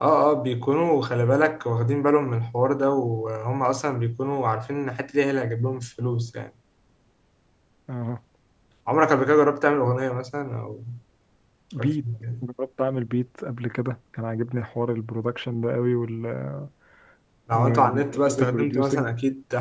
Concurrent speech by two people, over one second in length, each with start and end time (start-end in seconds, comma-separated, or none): 17.5-19.1